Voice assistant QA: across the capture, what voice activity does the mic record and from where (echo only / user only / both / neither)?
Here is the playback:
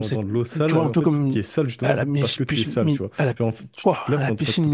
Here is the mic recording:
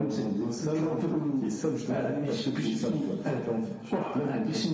echo only